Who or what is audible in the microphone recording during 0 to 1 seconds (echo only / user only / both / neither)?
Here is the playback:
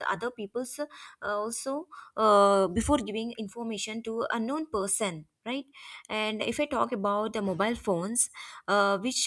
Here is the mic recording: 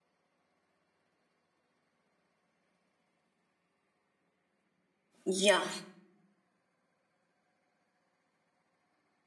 neither